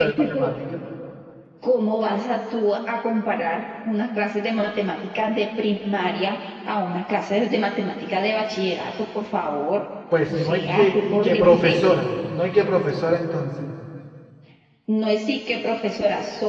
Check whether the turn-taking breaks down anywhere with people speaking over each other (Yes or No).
Yes